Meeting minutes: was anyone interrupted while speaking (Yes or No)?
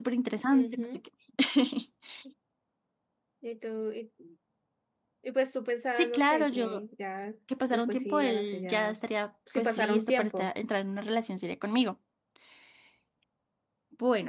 Yes